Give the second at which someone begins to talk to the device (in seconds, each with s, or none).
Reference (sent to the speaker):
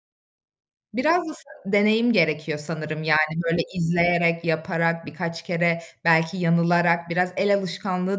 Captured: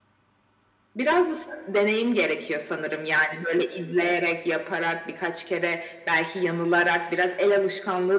none